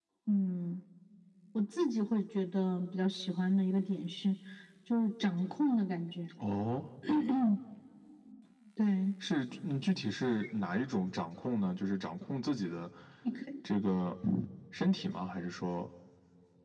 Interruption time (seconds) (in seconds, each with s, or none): none